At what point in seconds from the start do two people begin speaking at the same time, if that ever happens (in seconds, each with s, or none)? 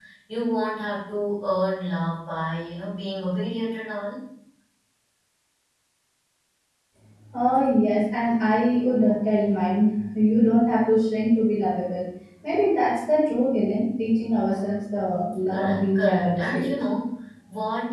15.5 s